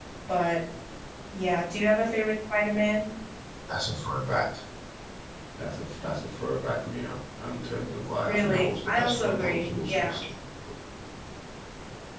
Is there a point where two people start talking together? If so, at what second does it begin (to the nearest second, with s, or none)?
8 s